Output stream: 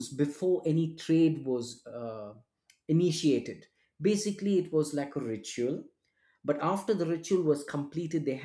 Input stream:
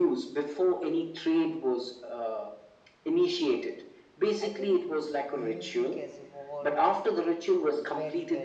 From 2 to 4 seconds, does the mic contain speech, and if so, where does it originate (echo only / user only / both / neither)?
echo only